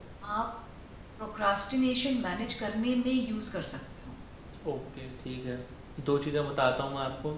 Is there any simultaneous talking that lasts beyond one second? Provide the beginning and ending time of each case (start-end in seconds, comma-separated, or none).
none